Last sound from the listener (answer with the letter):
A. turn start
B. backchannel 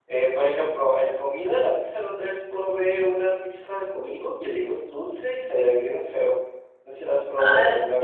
A